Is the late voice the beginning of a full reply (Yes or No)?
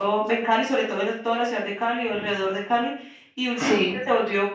No